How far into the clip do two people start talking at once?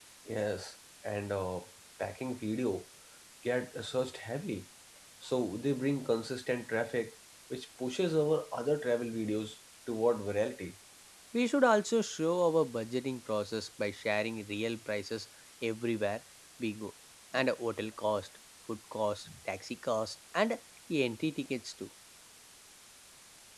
none

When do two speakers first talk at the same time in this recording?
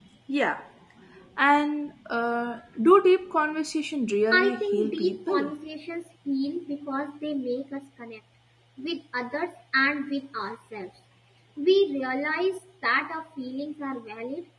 4.3 s

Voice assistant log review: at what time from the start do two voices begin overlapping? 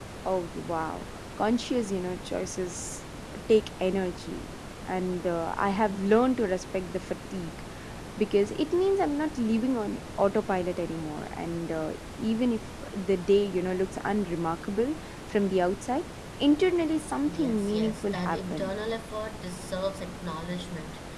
17.3 s

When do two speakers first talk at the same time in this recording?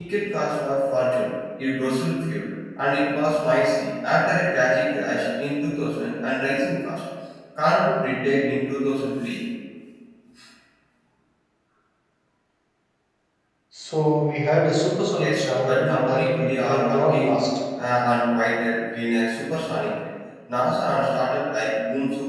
15.2 s

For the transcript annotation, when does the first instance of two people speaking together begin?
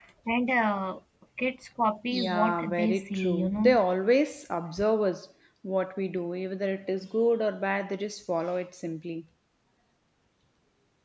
2.1 s

